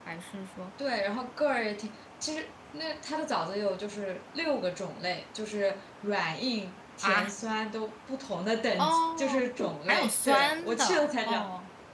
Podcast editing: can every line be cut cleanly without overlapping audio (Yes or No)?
No